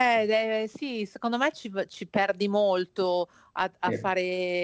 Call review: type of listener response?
listening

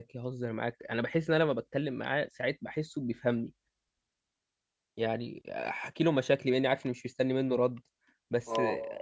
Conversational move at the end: listening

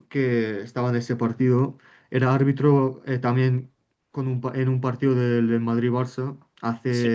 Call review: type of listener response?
listening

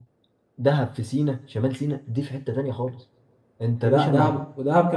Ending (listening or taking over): taking over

